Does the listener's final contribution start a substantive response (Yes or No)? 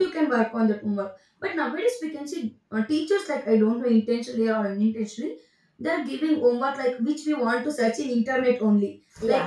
No